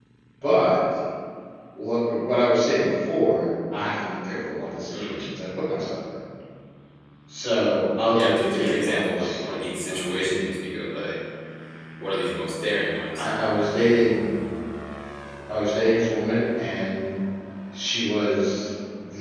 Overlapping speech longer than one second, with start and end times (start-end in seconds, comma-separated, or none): 8.1-9.3